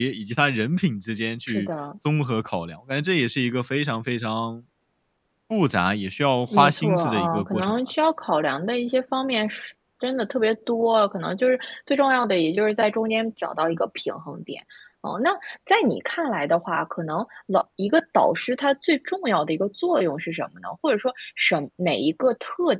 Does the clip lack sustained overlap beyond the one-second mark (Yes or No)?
No